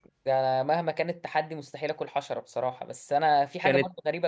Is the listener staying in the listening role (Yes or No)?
Yes